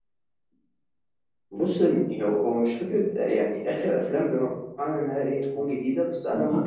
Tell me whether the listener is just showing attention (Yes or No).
Yes